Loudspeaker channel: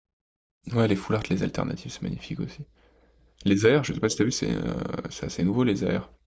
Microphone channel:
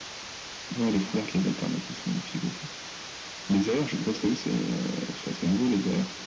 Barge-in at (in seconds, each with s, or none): none